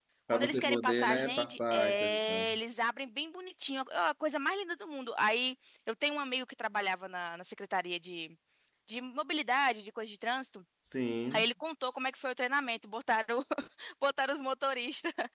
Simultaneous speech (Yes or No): Yes